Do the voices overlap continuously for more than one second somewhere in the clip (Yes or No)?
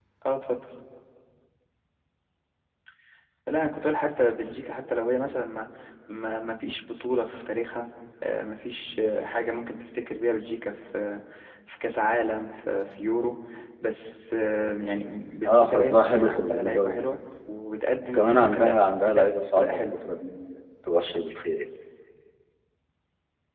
Yes